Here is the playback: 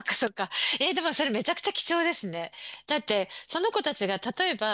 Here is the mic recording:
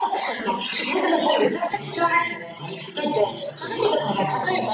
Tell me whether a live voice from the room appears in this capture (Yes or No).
Yes